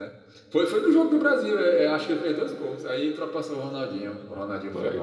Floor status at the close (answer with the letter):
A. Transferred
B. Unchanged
A